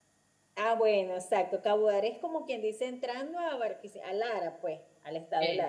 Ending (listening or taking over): listening